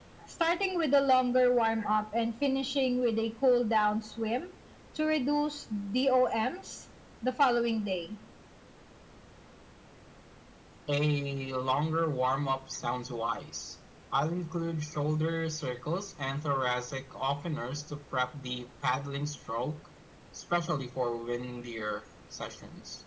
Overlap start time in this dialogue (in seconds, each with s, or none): none